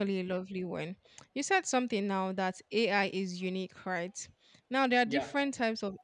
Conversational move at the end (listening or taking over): listening